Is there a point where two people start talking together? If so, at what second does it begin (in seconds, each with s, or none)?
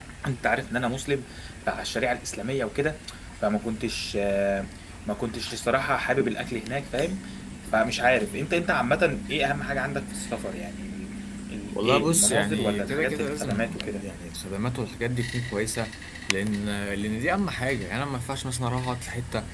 11.7 s